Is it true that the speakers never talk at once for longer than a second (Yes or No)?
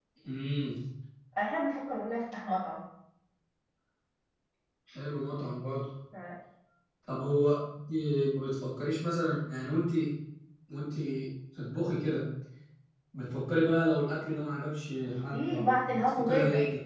No